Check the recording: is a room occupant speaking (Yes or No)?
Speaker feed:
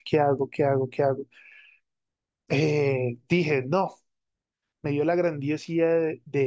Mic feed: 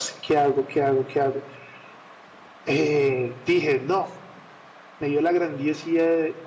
No